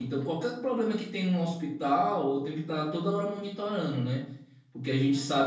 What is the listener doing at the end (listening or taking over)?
listening